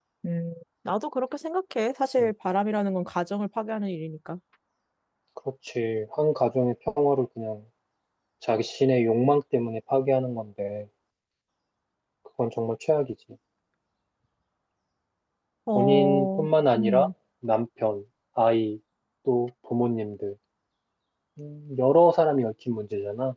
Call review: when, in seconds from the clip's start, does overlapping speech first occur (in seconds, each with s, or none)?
15.8 s